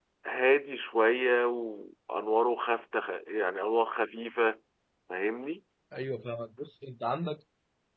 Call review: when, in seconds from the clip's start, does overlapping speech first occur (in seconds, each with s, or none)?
none